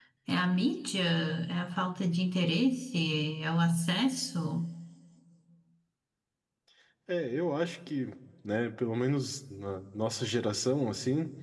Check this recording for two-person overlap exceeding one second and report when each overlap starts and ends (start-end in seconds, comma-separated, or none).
none